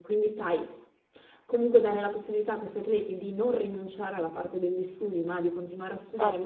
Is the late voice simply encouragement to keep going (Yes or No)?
Yes